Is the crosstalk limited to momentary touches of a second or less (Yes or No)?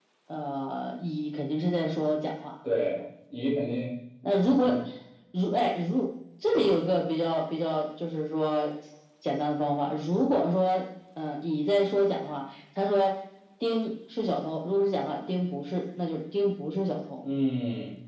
Yes